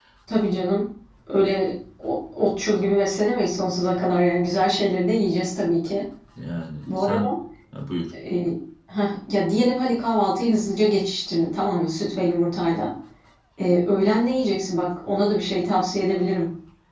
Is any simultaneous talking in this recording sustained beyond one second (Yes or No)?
No